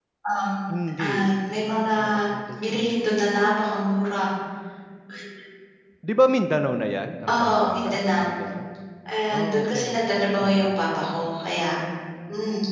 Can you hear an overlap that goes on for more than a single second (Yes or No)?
Yes